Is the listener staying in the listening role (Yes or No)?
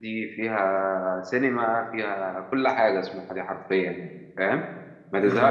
Yes